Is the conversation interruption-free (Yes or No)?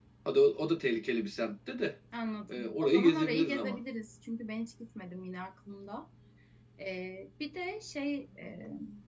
No